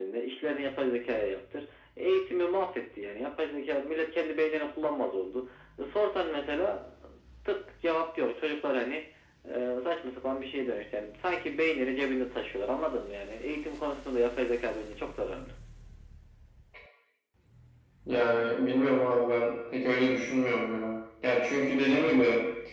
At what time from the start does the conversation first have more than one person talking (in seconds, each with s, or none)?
none